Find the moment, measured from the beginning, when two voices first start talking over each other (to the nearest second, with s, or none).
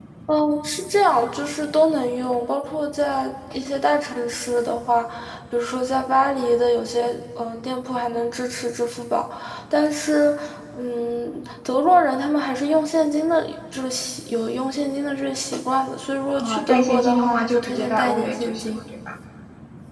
16 s